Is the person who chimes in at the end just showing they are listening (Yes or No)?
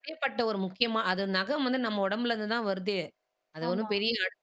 Yes